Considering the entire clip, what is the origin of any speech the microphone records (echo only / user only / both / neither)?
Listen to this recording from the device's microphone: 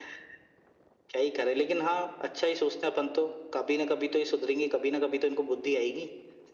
echo only